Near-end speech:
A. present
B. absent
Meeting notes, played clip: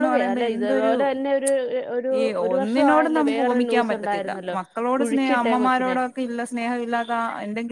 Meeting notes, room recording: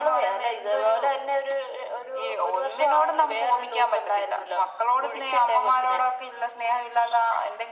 B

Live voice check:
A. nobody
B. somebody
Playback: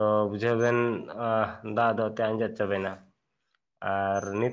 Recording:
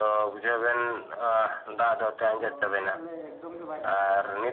B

